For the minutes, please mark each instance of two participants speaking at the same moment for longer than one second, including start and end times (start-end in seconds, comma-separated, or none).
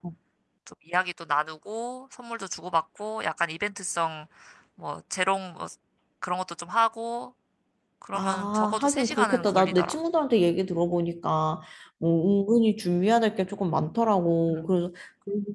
8.1-10.0